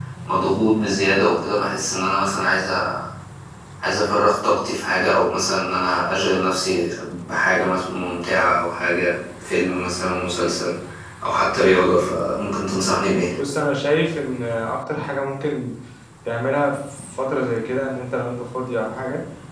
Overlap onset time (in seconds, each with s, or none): none